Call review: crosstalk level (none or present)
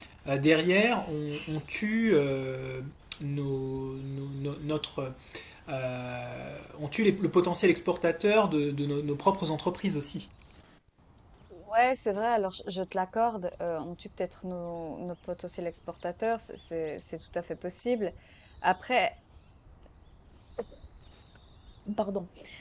none